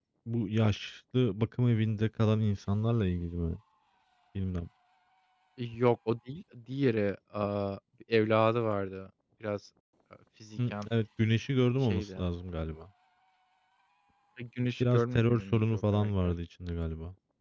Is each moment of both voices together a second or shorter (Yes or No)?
No